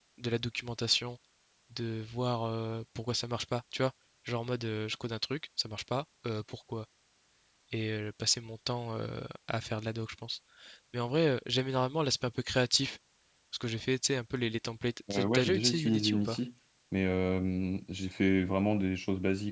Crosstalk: present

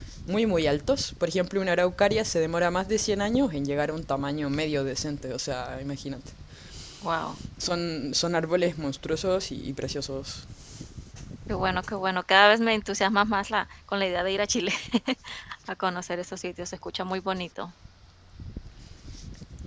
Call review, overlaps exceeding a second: none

